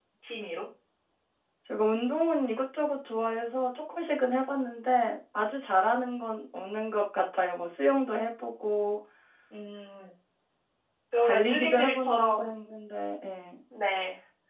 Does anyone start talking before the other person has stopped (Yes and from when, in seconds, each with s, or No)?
Yes, from 11.2 s